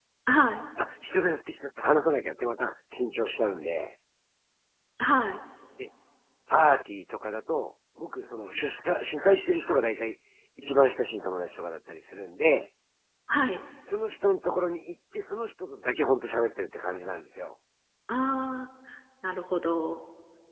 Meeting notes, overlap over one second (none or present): none